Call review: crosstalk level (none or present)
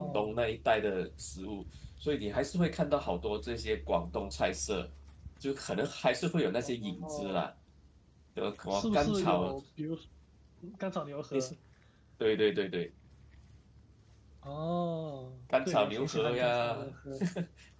present